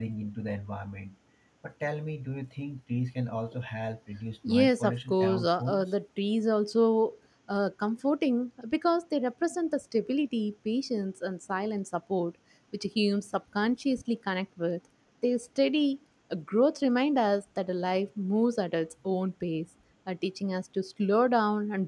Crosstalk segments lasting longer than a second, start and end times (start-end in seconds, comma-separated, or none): 4.5-5.8